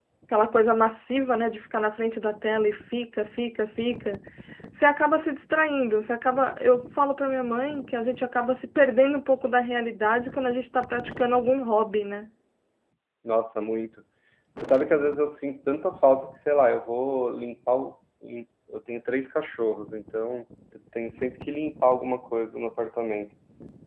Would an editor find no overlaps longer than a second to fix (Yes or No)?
Yes